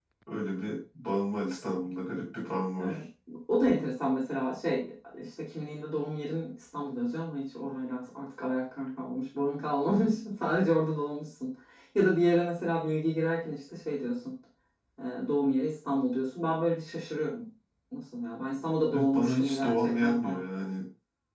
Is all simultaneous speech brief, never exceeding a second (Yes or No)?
No